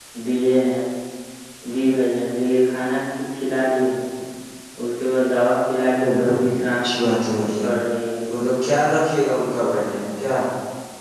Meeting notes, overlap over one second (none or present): none